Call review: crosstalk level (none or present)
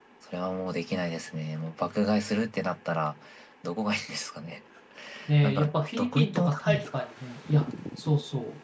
present